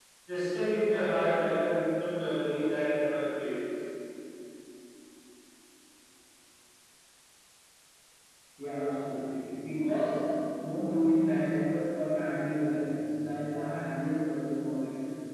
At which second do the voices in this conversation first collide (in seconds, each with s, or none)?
none